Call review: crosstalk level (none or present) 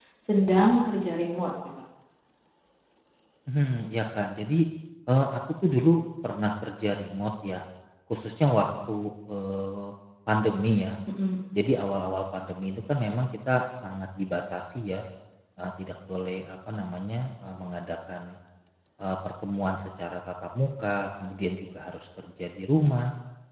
none